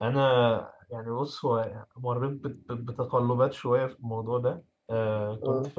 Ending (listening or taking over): listening